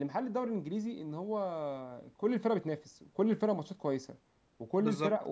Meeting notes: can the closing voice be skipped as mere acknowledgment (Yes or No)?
Yes